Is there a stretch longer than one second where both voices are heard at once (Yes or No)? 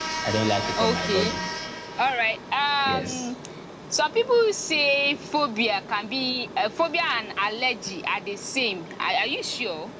No